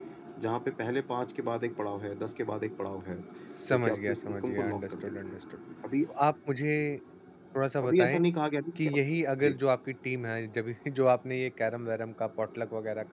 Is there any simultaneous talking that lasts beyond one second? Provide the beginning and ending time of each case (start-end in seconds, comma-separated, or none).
3.7-5.4